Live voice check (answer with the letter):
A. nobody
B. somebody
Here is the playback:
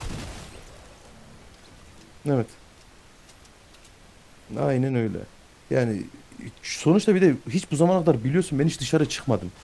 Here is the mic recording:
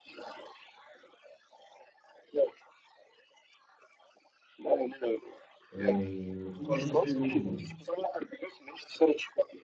B